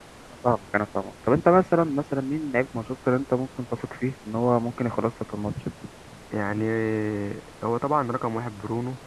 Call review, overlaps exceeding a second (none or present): none